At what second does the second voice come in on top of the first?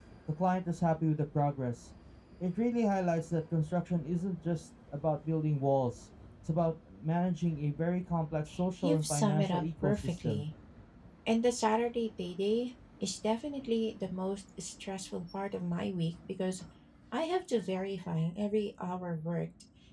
8.8 s

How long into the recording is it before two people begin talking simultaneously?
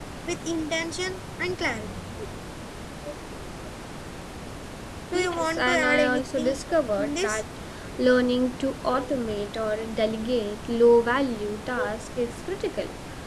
5.1 s

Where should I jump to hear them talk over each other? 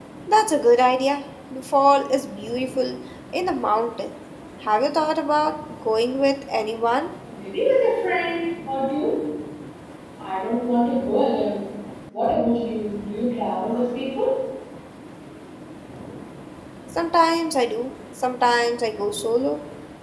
none

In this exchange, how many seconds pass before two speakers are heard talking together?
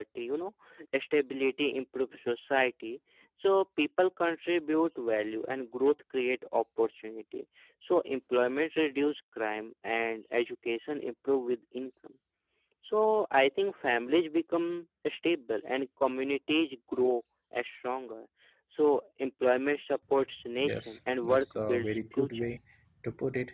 20.6 s

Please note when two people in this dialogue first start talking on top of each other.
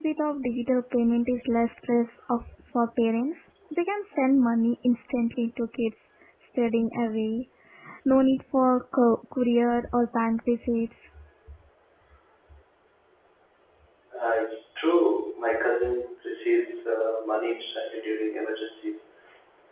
none

